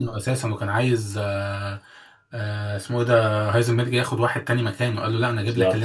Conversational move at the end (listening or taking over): listening